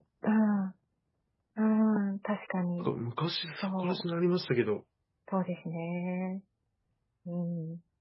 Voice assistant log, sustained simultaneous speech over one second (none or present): none